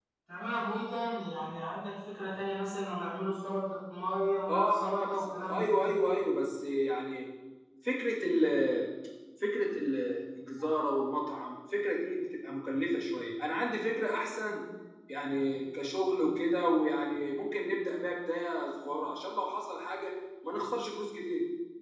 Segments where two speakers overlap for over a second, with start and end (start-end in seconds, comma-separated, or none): 4.5-5.9